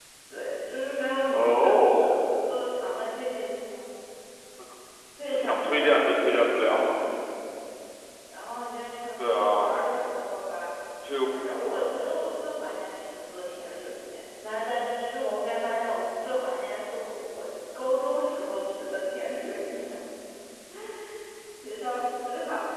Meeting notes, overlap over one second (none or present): present